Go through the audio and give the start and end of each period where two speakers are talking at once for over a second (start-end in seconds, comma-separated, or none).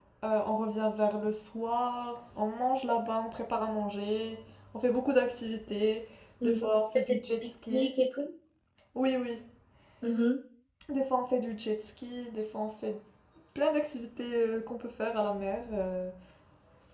6.4-7.9